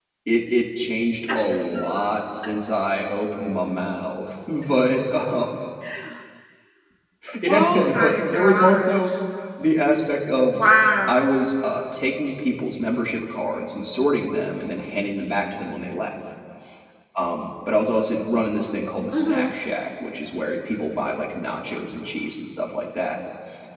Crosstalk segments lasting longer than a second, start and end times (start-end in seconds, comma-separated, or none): 7.5-9.1